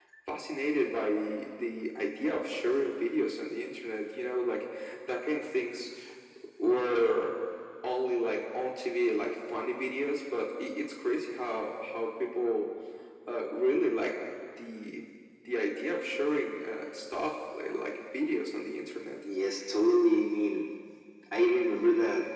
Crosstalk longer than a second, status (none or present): none